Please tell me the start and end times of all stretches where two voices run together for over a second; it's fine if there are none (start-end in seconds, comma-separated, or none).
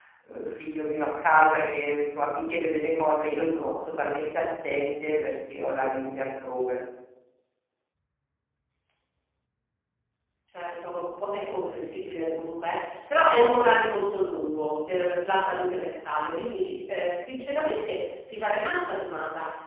none